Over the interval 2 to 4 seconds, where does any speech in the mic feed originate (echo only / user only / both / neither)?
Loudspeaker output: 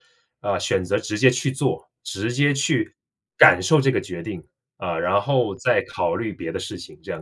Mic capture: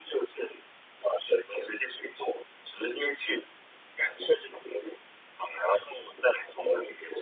echo only